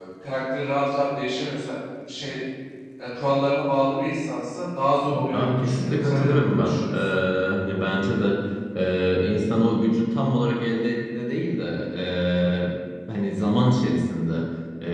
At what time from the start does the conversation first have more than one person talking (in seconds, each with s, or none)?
5.3 s